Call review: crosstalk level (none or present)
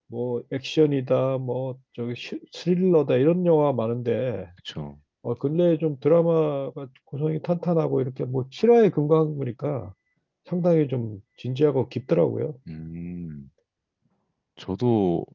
none